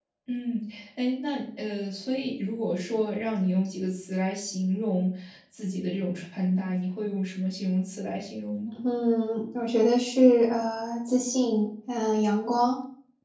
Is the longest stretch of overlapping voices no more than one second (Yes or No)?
Yes